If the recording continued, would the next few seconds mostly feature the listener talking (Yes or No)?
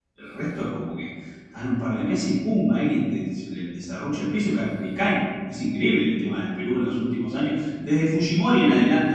No